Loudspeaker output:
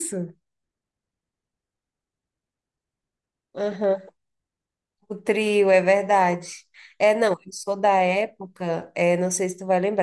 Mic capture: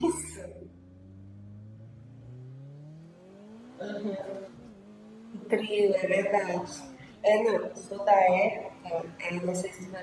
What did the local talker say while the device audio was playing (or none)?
none